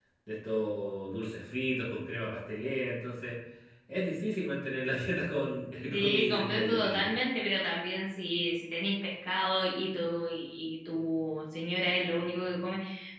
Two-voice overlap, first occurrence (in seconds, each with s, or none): 5.9 s